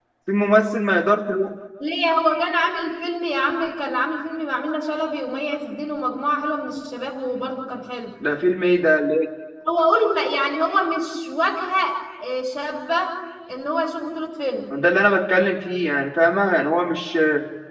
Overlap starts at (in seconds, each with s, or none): none